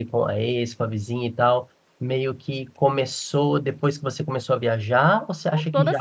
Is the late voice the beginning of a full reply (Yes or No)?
Yes